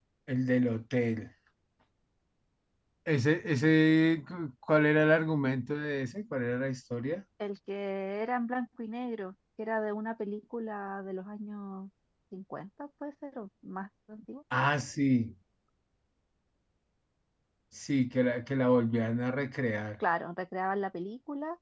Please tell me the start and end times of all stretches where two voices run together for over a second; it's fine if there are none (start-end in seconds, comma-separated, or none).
none